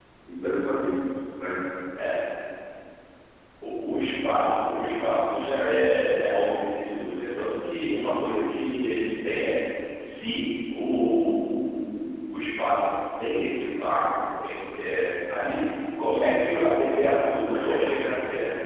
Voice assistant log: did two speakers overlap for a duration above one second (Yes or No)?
No